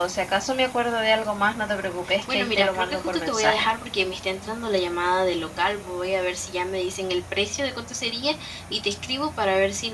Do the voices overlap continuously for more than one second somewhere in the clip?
Yes, from 2.3 s

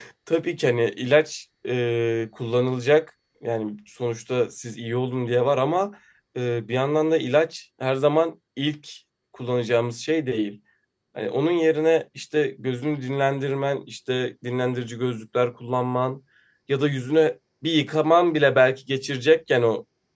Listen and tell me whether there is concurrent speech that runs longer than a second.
No

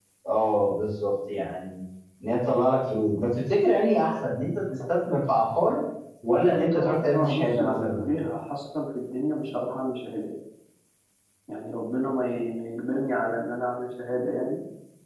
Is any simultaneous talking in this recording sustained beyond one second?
Yes, from 6.4 s

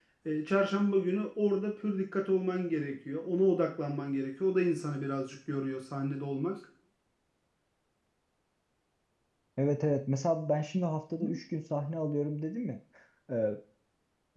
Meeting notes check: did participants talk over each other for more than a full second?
No

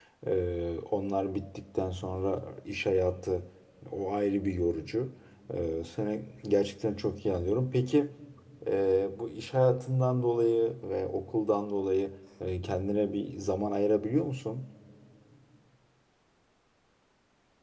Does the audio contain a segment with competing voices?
No

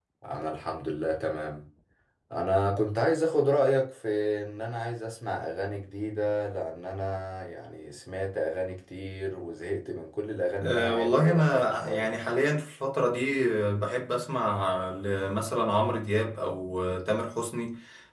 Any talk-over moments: Yes, from 10.6 s

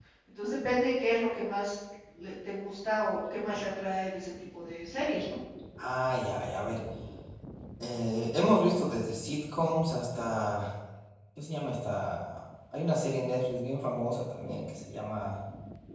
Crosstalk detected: No

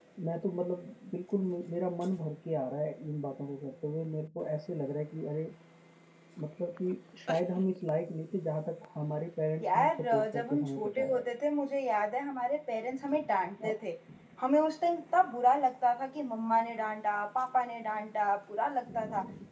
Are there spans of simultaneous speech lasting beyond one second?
Yes, from 9.6 s

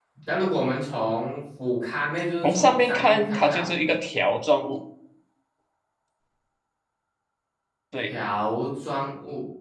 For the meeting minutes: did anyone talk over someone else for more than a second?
Yes, from 2.4 s

